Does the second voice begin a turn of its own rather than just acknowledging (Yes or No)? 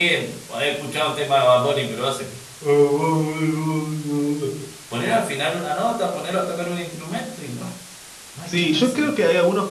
Yes